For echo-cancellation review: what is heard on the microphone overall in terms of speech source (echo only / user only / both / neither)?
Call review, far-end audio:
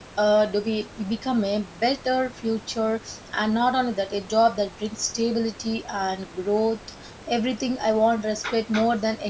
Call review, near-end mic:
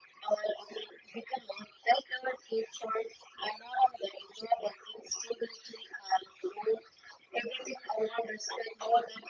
echo only